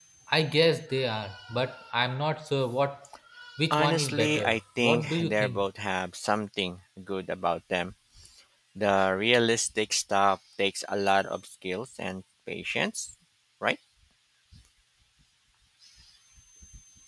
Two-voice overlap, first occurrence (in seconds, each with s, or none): 3.7 s